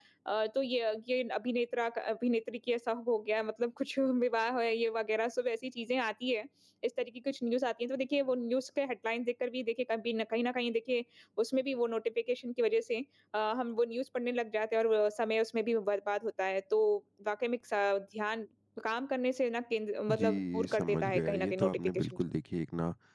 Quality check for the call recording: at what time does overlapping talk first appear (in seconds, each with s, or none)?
20.1 s